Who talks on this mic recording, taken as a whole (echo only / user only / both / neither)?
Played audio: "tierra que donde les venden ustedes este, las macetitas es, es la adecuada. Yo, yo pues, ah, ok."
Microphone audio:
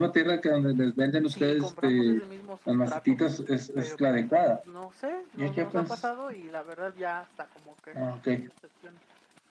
both